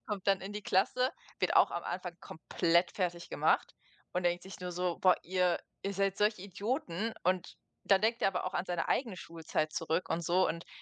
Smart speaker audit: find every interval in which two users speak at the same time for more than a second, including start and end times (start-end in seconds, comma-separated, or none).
none